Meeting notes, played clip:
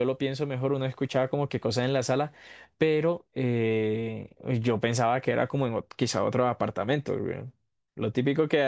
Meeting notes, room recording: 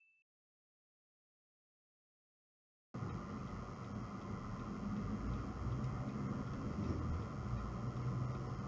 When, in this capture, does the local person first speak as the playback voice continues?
none

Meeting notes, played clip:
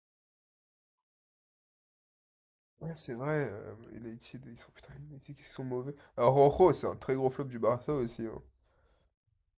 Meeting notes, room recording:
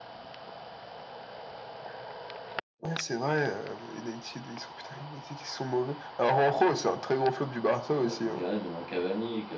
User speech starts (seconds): 8.0 s

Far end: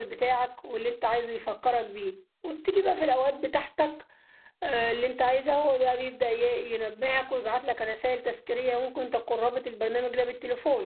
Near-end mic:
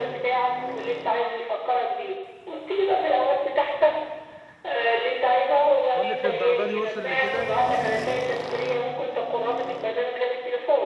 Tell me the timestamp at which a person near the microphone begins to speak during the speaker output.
5.9 s

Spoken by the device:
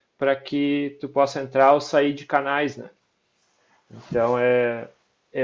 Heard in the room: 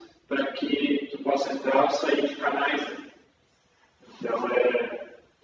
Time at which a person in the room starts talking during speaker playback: none

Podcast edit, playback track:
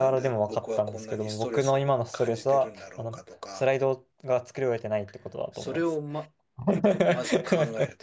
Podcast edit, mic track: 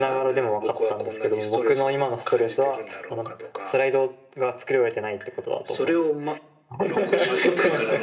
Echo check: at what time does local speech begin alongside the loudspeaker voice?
6.8 s

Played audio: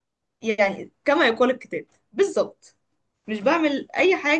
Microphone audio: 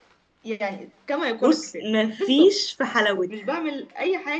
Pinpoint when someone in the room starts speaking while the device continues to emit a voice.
1.4 s

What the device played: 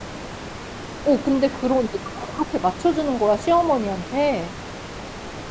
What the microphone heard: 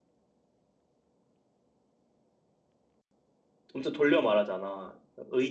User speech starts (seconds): 3.7 s

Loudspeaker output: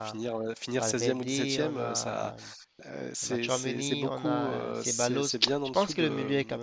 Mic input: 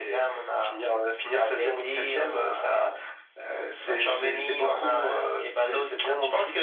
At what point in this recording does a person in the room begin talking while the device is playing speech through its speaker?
none

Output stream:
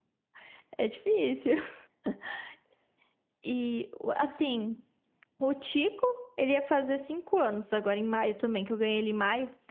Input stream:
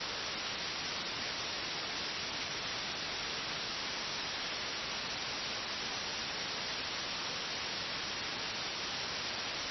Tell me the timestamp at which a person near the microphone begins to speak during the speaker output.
none

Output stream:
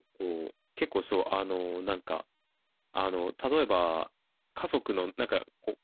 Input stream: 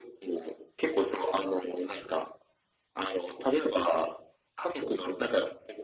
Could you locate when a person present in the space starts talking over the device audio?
none

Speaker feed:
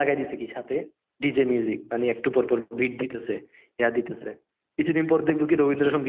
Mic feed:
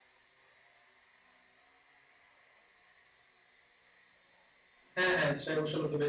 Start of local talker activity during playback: 4.9 s

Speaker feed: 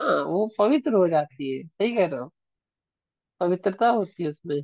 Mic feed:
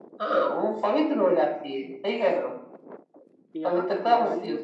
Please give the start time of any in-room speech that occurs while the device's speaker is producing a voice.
3.6 s

